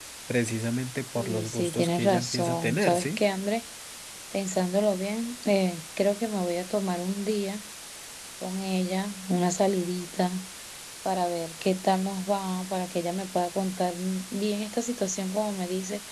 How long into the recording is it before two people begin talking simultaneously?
1.1 s

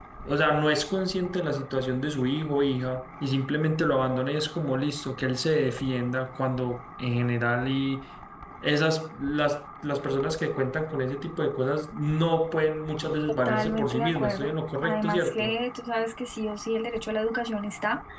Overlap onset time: 13.3 s

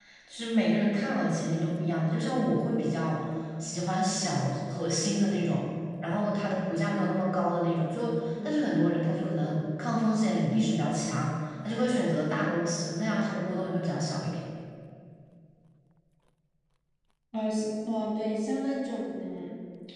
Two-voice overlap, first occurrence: none

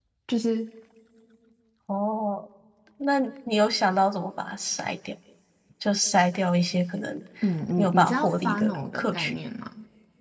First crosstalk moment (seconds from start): 7.8 s

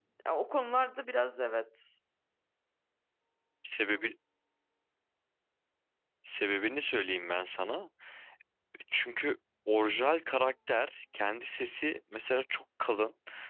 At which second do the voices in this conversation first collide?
none

